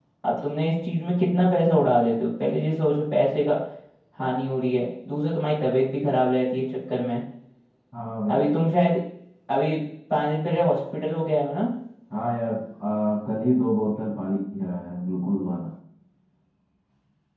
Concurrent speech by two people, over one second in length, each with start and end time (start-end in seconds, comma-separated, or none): none